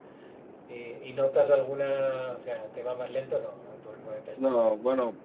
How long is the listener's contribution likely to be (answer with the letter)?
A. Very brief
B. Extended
B